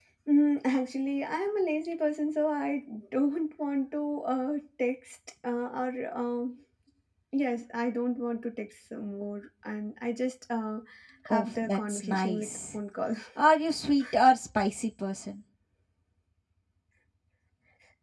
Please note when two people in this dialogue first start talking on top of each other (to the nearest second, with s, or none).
11 s